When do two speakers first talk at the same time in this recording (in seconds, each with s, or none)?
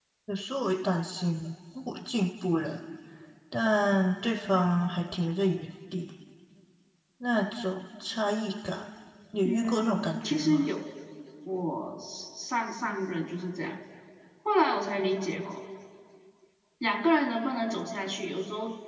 9.4 s